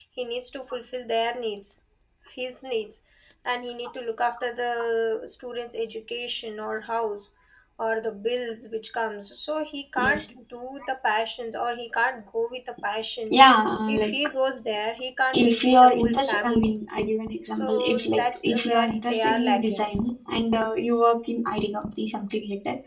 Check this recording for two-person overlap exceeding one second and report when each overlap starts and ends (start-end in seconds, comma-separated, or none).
15.3-16.7, 17.5-19.9